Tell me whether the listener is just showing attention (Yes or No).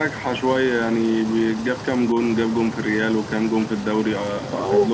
No